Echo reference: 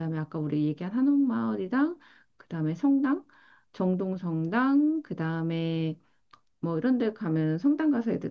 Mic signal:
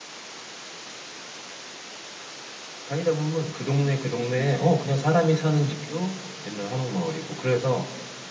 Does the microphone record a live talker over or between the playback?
Yes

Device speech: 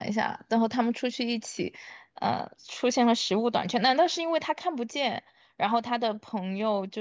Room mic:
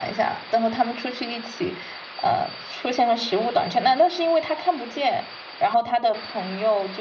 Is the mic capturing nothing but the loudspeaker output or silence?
Yes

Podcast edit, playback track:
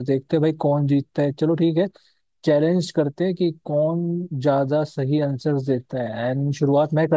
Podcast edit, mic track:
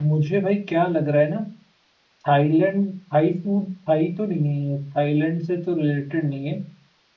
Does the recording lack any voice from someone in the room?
No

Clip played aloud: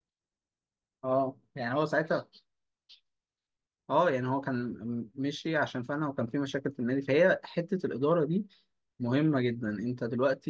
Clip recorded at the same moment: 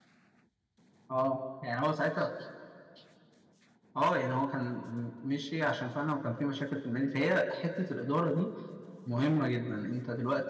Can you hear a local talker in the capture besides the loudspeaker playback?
No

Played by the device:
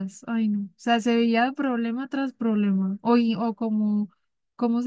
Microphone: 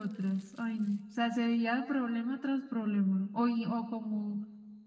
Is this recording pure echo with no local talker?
Yes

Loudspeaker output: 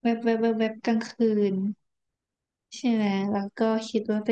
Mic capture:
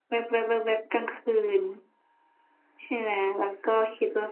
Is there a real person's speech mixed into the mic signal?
No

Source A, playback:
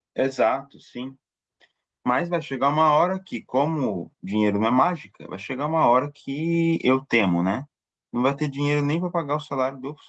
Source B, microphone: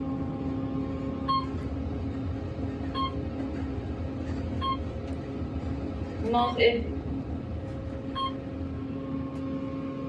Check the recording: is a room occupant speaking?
Yes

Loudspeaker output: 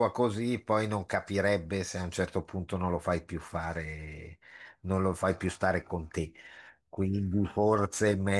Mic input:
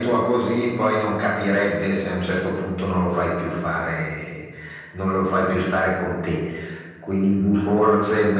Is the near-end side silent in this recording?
Yes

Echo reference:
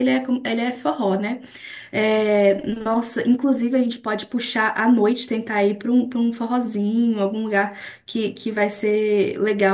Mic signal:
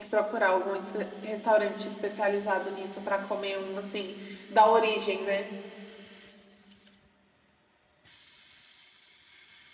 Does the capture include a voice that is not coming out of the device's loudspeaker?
Yes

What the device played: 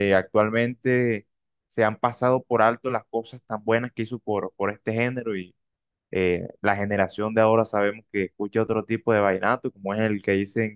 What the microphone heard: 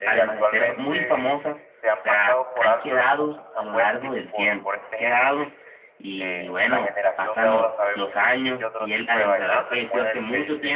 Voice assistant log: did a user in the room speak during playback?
Yes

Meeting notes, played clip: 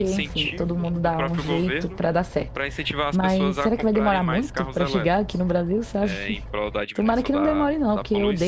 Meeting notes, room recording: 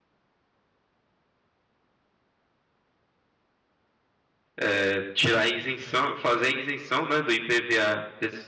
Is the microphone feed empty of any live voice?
No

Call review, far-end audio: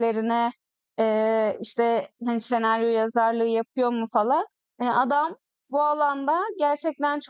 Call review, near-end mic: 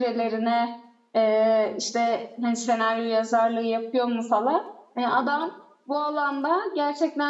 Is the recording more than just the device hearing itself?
No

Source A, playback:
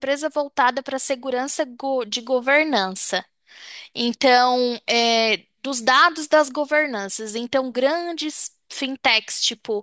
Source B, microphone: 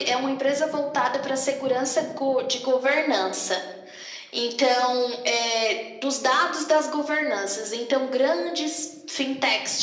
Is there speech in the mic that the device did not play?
No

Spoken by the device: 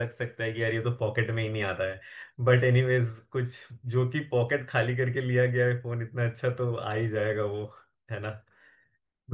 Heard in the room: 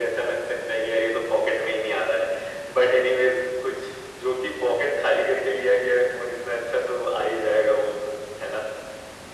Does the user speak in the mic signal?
No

